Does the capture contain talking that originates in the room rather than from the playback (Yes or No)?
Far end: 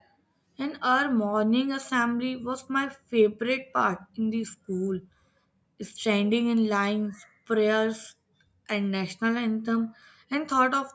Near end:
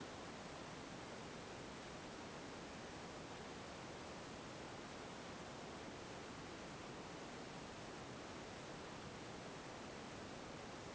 No